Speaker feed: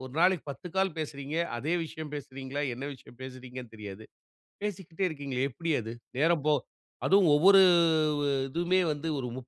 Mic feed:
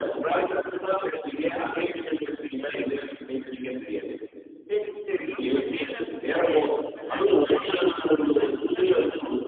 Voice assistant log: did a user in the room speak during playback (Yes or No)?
Yes